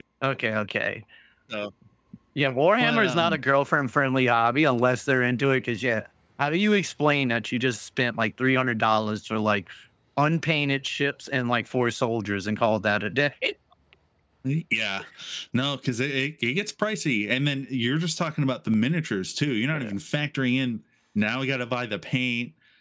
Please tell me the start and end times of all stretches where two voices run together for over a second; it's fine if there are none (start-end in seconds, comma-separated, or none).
none